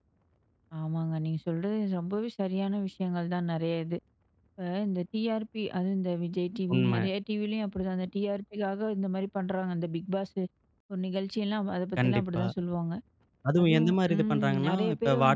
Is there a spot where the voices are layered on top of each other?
Yes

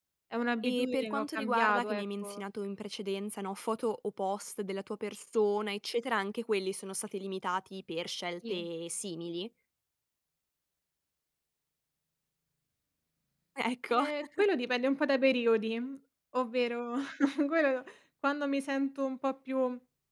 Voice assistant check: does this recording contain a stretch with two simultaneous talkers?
Yes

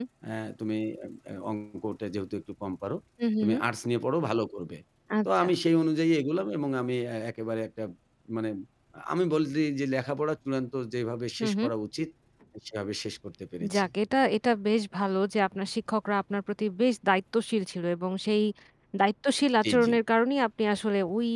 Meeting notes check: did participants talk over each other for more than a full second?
No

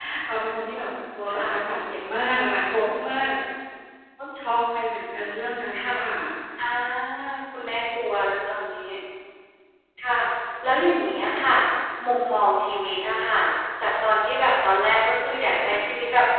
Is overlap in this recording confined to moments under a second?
Yes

